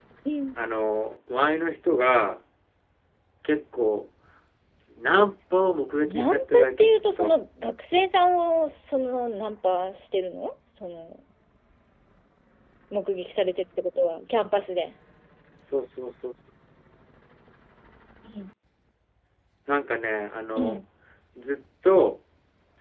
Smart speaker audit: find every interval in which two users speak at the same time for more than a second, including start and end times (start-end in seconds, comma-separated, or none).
6.0-7.3